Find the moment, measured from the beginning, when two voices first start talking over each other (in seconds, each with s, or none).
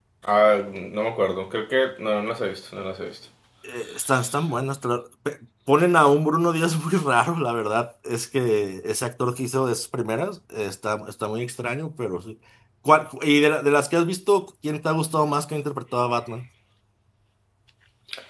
none